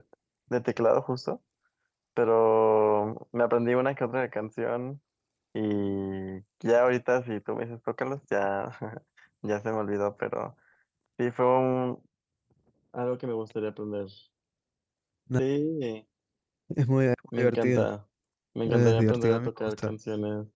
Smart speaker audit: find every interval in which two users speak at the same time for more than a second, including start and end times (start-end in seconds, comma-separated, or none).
18.7-19.9